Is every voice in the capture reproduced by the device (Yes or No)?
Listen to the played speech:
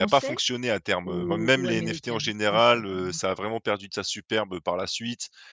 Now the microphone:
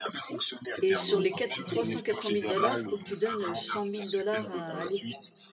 No